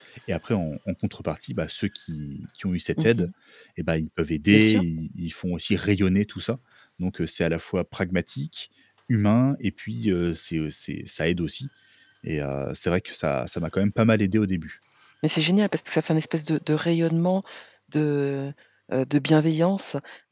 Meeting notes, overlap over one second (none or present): none